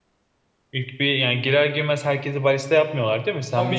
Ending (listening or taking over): taking over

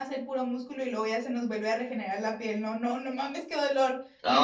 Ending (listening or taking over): taking over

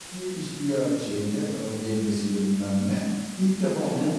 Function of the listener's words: listening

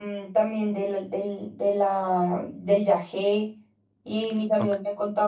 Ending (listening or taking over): listening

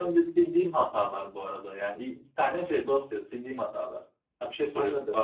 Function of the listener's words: taking over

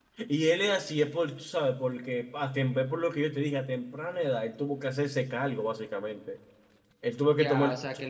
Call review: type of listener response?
taking over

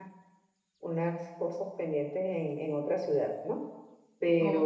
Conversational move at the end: listening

